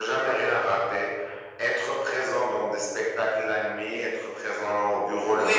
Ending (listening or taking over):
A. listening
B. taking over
B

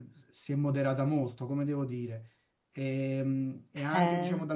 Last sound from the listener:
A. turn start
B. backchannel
B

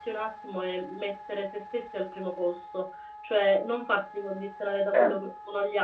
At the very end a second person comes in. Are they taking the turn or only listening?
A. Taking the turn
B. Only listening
B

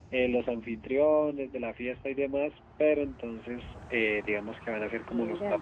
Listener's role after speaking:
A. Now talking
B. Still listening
B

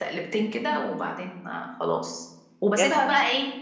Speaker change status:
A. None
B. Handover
A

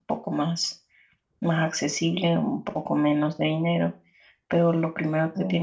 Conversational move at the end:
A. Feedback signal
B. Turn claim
A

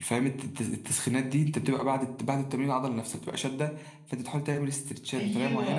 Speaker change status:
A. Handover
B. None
A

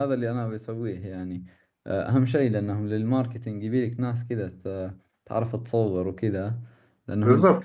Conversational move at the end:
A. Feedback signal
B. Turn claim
B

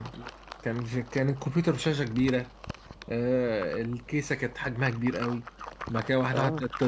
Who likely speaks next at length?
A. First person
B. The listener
A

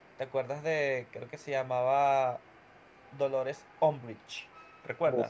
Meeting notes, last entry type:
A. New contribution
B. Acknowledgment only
A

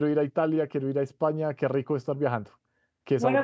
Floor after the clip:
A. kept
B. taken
B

